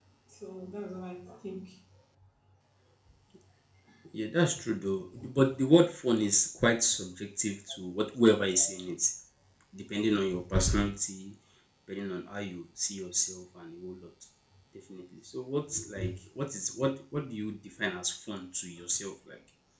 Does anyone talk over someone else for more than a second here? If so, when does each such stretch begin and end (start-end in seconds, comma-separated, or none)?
none